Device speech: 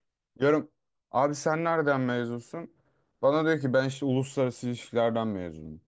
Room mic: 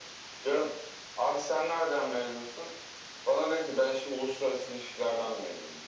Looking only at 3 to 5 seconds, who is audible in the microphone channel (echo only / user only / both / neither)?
echo only